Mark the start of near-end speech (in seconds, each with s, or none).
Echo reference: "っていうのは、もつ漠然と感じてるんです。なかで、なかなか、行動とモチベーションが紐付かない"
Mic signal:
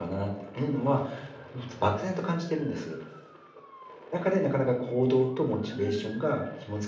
5.7 s